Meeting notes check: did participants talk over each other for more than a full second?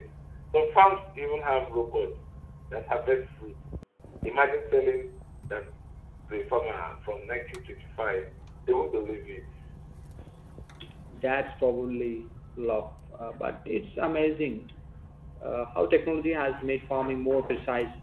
No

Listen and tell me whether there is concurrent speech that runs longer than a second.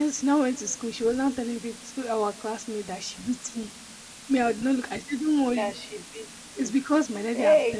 No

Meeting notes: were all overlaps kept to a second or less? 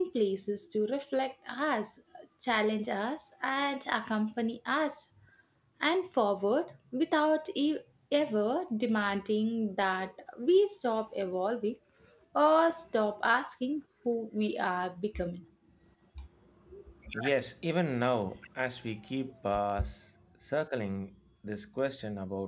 Yes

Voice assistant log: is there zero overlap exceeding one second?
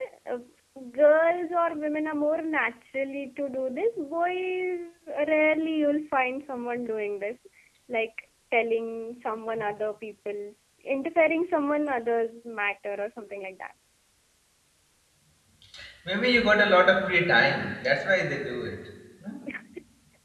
Yes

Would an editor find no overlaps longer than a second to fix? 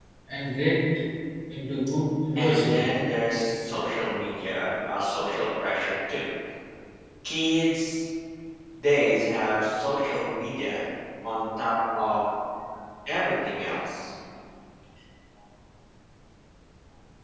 Yes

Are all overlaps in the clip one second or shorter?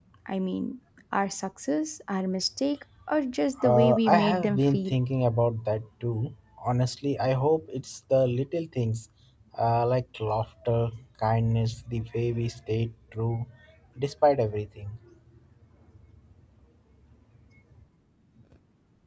No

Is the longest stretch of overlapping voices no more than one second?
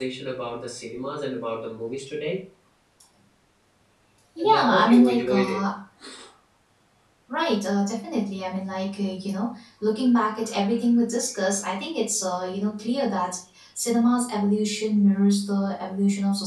No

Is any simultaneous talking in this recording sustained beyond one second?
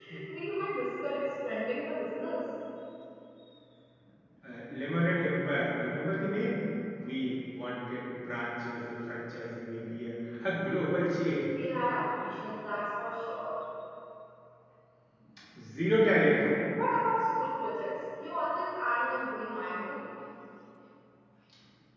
No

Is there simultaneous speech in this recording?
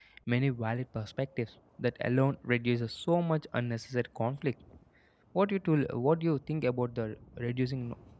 No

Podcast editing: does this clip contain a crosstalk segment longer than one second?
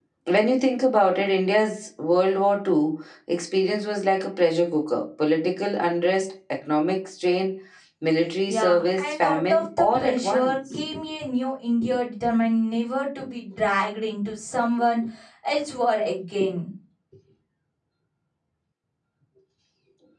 Yes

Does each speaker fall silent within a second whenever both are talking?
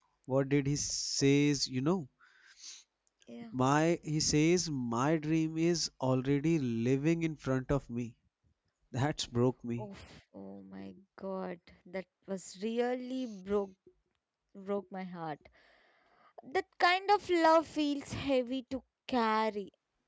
Yes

